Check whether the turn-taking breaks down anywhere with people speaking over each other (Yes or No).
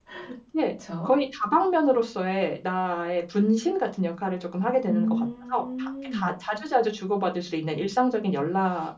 Yes